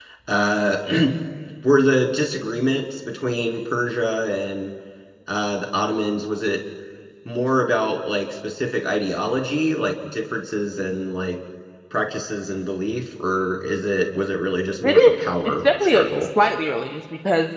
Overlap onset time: 14.8 s

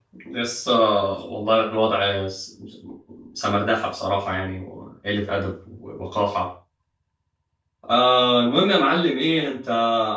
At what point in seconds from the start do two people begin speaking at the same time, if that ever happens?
none

